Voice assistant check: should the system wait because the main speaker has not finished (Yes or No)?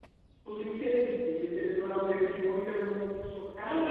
Yes